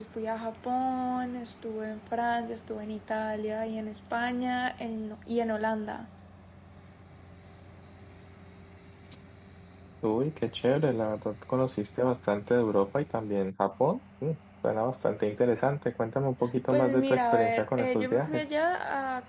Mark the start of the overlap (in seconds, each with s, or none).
16.7 s